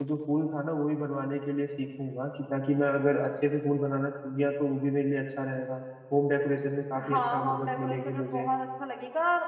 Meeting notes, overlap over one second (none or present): present